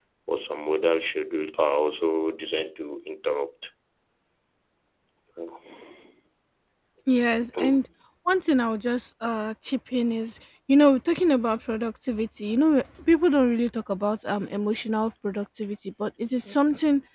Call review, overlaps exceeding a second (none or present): none